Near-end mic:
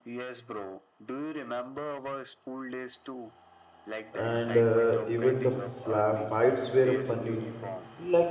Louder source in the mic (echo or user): user